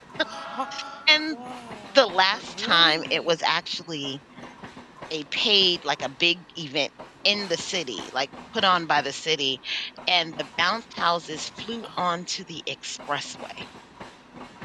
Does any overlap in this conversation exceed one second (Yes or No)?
Yes